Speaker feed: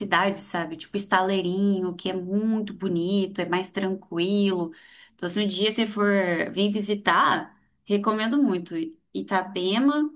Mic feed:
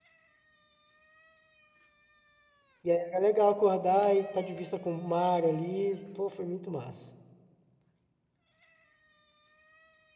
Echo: none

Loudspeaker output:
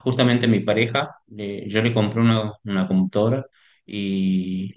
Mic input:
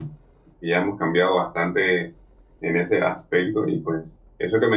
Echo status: none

